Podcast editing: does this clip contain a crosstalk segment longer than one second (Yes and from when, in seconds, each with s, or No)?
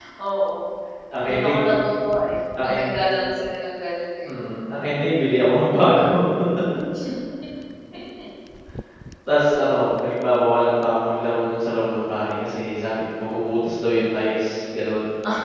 No